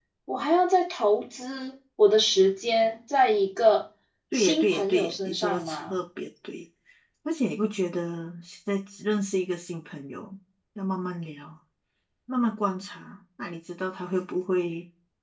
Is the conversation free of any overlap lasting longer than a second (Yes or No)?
No